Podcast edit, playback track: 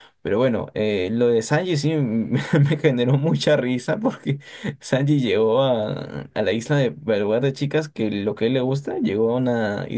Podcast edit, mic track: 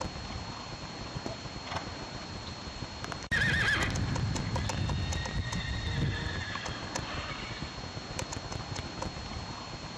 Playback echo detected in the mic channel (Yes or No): No